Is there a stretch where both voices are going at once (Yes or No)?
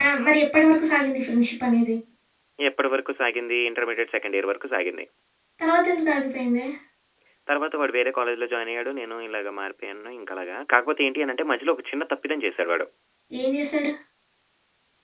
No